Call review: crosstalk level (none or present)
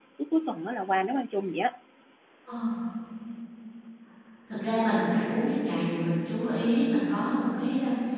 none